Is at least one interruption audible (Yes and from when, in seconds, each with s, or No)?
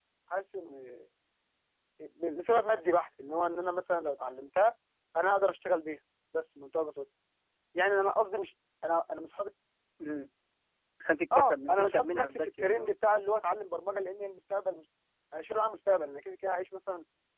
Yes, from 11.3 s